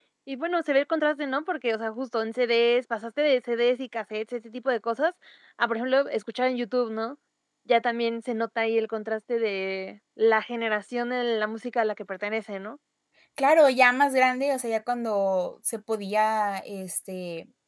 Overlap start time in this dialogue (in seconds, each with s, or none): none